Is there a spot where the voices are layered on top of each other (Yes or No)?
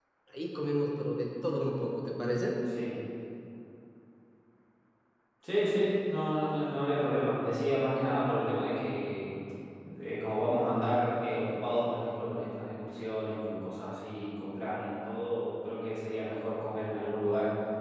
No